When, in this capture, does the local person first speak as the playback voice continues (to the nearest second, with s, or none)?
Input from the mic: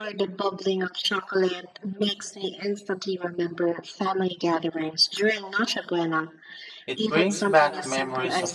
7 s